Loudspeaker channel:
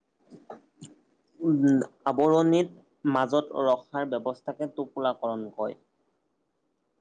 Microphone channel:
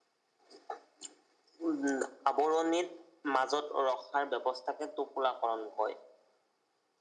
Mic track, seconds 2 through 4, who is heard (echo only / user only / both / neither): echo only